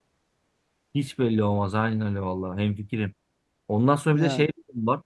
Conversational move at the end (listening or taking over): listening